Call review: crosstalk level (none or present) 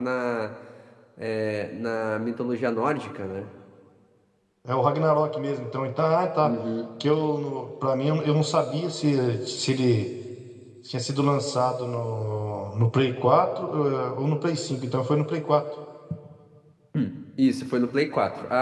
none